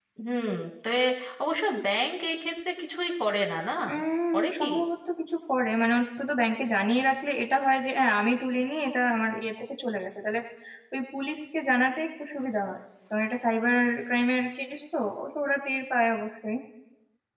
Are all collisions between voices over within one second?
Yes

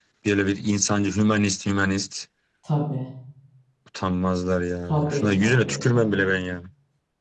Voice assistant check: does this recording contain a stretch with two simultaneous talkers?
Yes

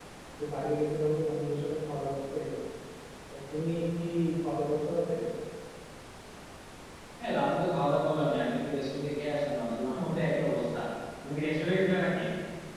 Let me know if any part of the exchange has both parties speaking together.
No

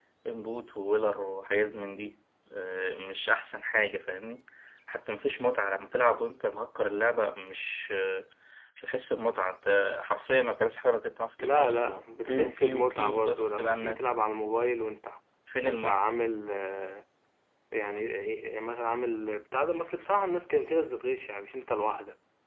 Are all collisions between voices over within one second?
No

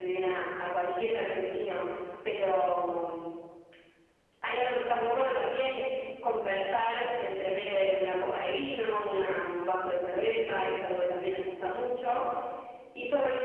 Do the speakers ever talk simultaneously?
No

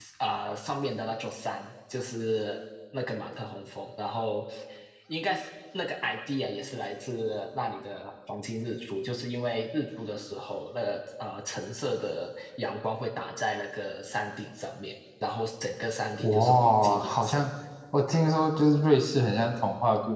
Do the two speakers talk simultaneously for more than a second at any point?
Yes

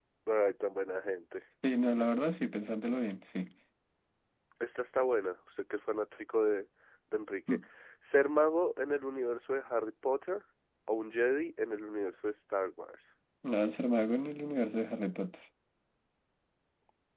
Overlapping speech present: No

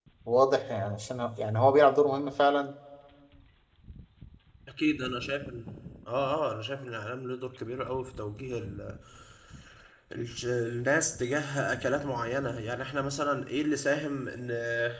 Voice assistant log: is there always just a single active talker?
Yes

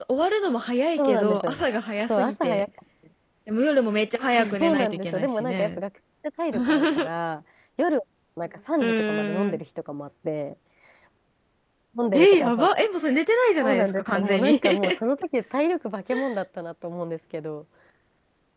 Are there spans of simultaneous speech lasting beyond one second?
Yes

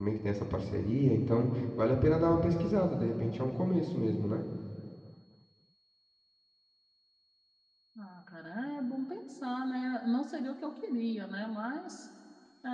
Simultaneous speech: No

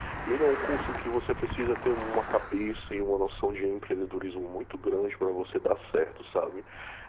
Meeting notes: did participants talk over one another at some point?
No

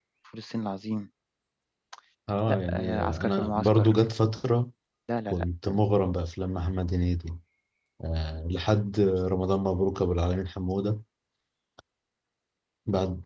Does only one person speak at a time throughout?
No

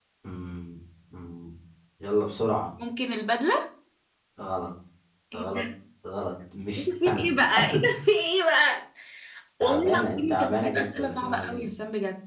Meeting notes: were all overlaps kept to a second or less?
No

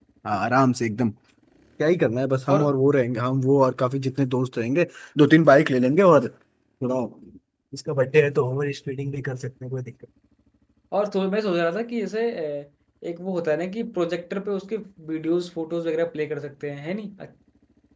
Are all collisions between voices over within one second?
Yes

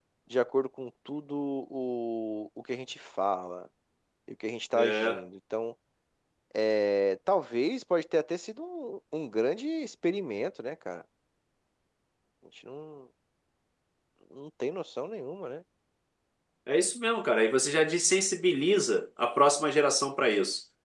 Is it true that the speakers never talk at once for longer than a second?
Yes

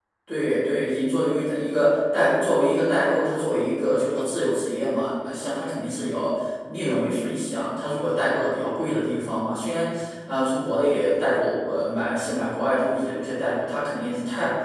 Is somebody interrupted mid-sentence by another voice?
No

